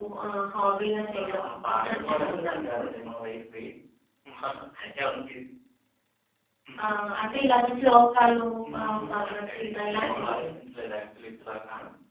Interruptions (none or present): present